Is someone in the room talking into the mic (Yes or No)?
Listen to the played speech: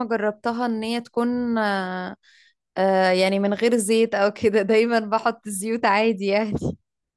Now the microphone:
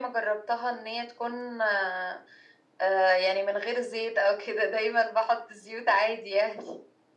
No